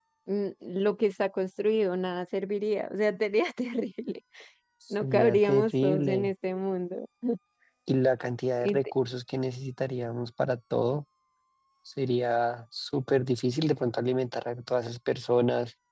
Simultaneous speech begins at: 5.0 s

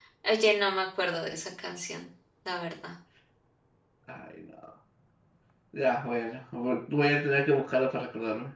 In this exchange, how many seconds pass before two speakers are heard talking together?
none

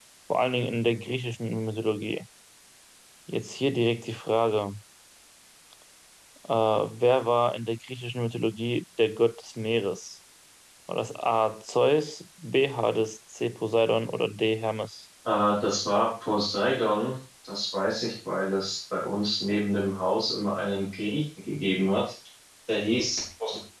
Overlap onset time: none

